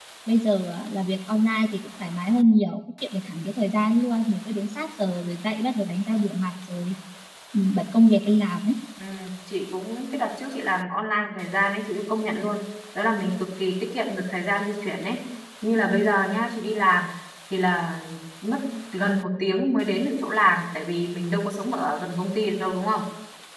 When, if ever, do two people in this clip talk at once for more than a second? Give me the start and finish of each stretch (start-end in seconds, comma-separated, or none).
none